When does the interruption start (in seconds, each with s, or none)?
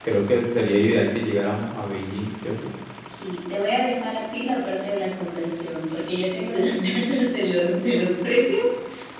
none